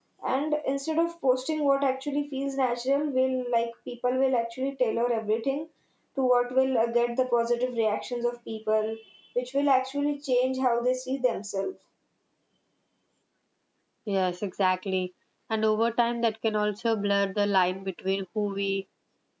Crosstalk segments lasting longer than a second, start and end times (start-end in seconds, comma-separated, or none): none